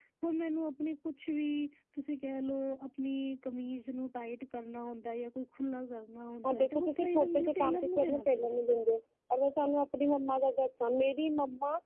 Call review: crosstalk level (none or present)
present